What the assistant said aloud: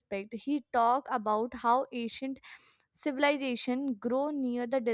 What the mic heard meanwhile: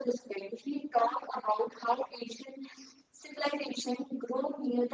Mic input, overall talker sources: echo only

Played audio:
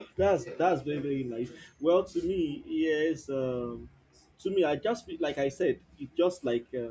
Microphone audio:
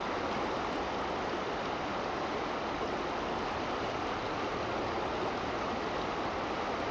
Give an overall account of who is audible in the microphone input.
neither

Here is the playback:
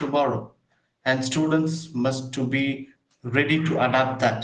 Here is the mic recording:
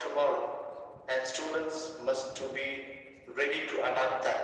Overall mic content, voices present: echo only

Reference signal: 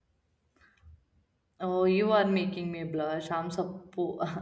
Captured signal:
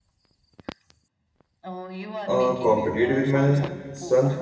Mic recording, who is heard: both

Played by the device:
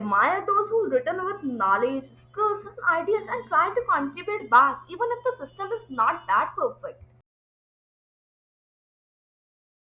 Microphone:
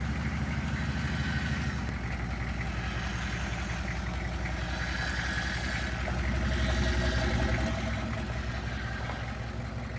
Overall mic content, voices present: neither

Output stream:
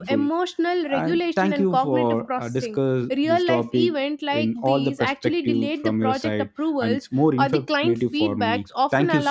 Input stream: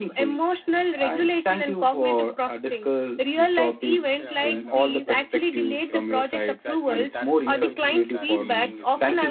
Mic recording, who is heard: both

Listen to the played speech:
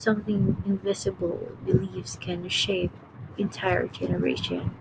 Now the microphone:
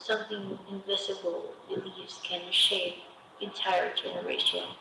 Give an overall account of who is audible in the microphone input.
echo only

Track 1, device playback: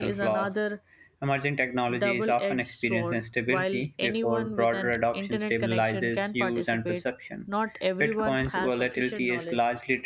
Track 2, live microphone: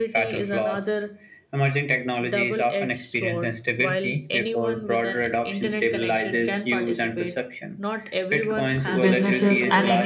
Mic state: both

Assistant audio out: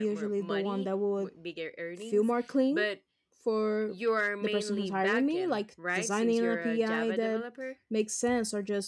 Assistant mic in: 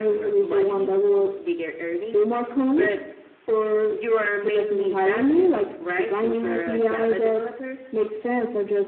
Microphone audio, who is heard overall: echo only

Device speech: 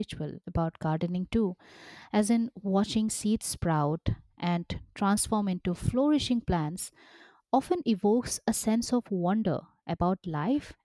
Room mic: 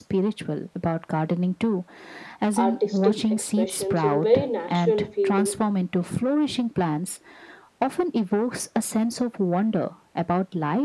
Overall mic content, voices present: both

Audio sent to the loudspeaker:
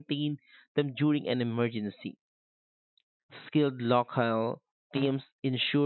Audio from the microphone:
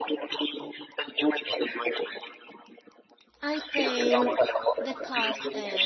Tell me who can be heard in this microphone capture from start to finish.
both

